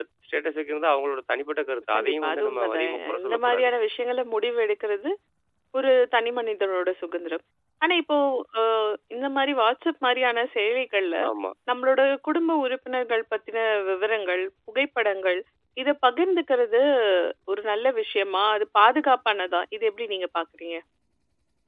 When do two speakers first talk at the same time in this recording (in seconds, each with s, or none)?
1.9 s